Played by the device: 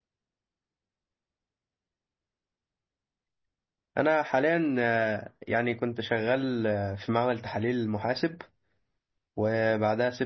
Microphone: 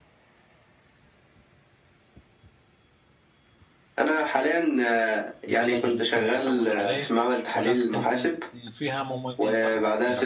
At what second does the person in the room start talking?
5.5 s

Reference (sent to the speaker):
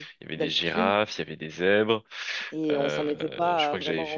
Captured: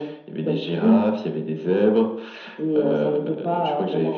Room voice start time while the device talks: none

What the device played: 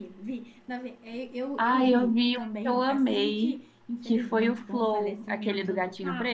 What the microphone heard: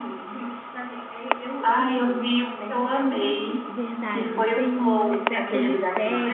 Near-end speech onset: 3.7 s

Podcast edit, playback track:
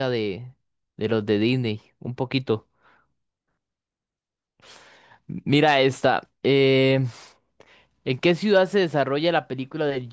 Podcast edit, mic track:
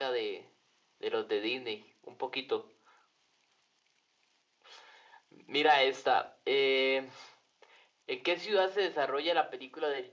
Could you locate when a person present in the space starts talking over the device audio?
none

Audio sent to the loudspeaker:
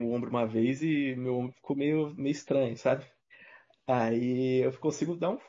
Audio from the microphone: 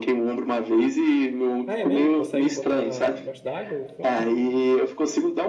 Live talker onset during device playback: 1.7 s

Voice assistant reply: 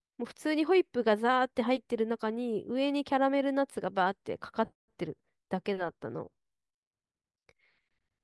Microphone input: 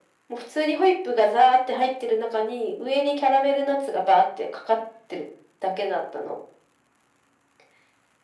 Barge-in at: none

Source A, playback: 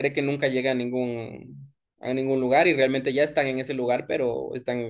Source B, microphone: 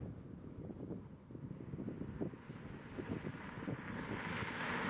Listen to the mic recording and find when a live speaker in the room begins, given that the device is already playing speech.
none

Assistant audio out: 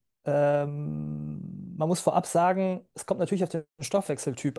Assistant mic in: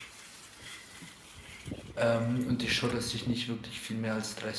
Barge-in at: 1.9 s

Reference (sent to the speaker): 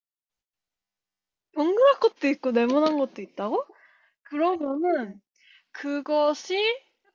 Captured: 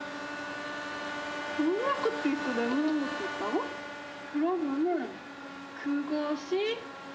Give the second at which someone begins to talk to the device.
none

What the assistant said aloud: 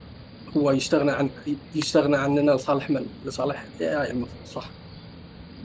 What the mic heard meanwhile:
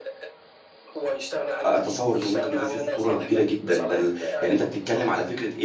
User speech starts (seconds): 1.6 s

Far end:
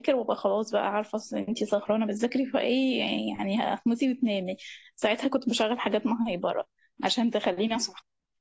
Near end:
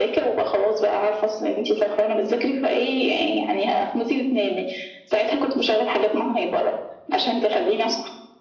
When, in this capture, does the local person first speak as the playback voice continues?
none

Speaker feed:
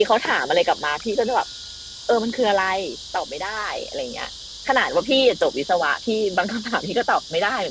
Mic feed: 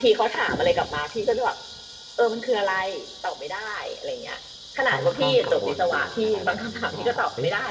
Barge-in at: 4.8 s

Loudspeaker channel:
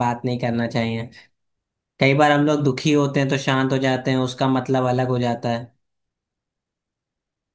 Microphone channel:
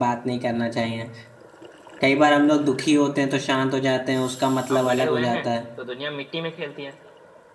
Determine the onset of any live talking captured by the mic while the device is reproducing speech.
4.7 s

